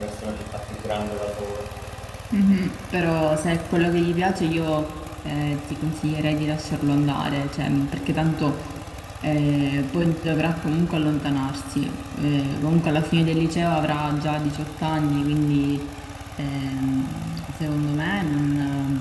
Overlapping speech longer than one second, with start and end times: none

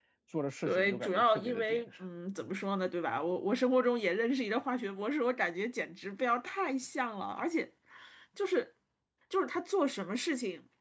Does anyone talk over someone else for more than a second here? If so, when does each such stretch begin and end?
0.7-1.9

